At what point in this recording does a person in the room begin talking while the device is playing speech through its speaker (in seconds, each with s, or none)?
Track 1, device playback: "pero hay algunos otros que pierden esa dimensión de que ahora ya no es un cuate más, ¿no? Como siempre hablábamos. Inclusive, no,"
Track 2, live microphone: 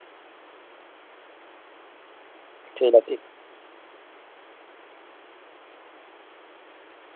2.8 s